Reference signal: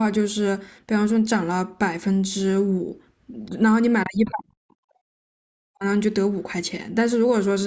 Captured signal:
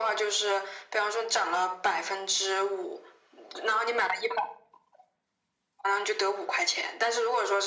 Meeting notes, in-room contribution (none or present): none